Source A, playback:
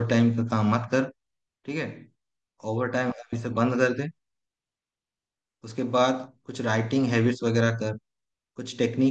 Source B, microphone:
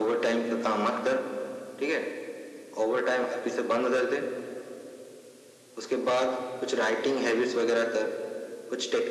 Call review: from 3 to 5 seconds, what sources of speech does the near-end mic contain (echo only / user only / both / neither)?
echo only